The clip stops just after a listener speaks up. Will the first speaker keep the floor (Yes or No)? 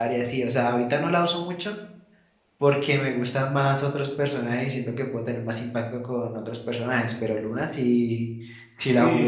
No